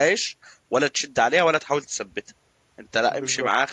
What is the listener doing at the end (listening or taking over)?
listening